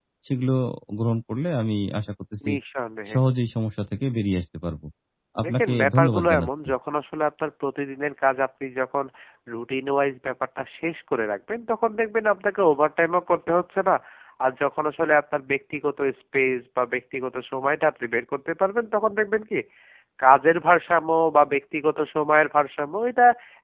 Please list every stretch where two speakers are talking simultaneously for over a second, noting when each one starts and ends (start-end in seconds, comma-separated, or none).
5.4-6.7